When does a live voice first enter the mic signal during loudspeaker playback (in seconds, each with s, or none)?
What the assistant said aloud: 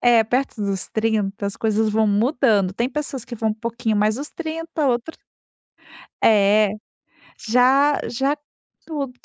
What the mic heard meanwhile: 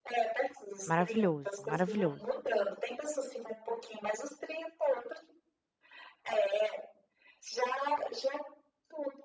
0.9 s